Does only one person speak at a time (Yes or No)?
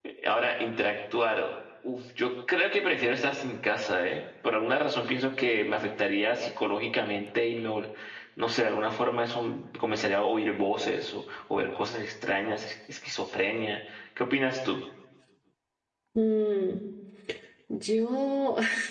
Yes